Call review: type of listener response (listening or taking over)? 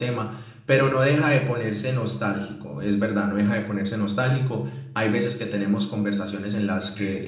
listening